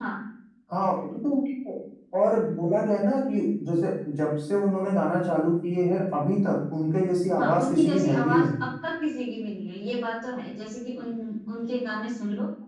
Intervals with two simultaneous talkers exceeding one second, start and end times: 7.4-8.7

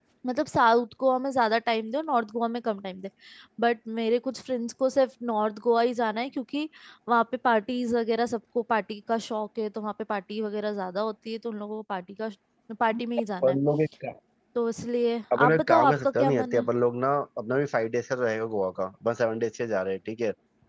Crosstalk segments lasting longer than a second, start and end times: 15.3-16.7

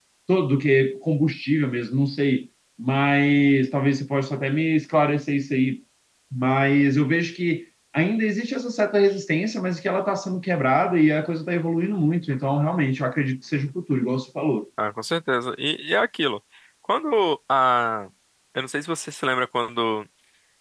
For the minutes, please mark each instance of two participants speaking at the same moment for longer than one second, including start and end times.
none

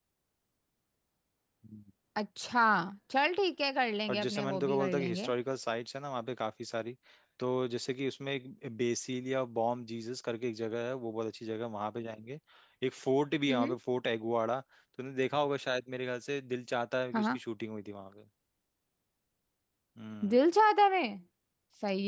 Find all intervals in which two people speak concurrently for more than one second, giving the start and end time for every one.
4.1-5.3

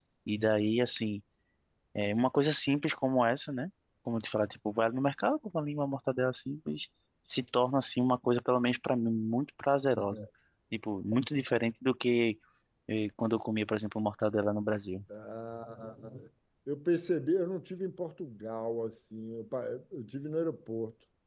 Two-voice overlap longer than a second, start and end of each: none

